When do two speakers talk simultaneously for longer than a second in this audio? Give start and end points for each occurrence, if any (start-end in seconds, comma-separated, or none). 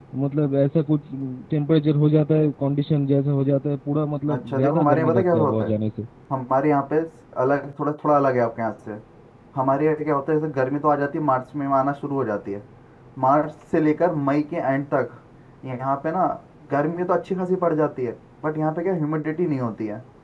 4.3-5.7